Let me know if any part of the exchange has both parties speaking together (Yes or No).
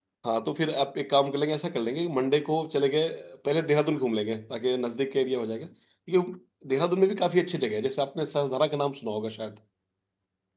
No